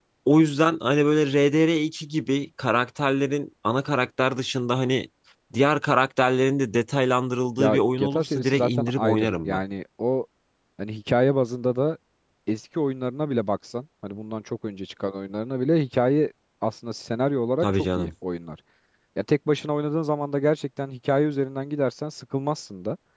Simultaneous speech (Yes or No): Yes